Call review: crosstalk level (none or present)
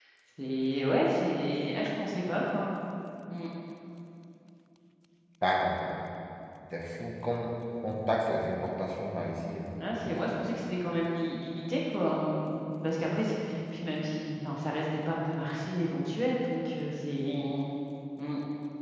none